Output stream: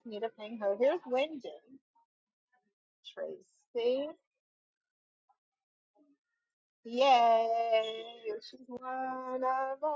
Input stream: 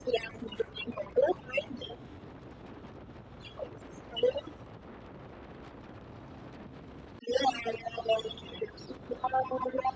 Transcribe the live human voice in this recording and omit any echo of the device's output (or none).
none